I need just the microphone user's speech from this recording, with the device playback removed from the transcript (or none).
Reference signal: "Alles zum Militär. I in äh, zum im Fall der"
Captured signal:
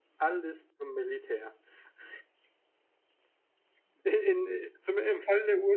none